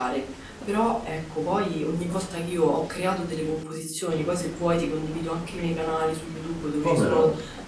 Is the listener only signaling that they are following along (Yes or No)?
Yes